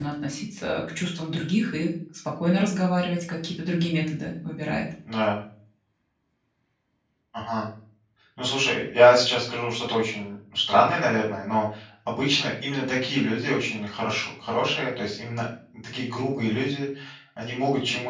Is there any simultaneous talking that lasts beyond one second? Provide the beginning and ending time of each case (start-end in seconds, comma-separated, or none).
none